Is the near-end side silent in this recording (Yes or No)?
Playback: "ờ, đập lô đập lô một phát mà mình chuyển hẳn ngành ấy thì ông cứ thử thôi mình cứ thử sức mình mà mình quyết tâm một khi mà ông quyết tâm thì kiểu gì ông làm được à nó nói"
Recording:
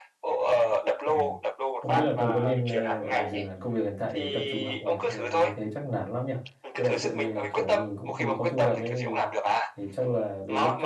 No